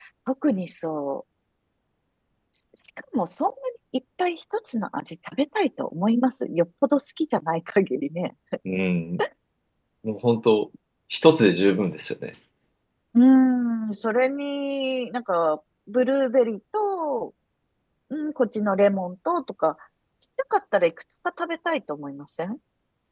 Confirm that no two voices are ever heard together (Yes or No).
Yes